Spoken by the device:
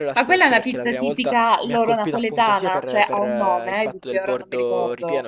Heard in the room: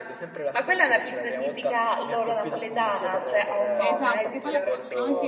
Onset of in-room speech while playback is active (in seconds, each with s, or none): 3.8 s